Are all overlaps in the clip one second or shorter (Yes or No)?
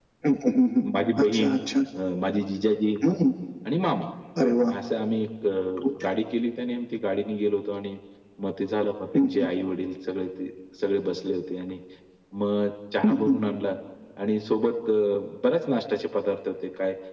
Yes